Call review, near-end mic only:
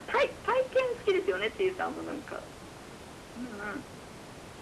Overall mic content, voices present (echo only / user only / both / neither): echo only